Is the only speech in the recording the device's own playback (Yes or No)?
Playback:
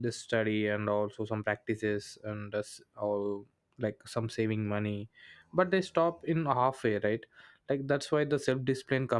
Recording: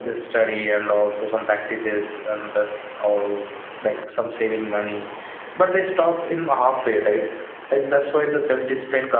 Yes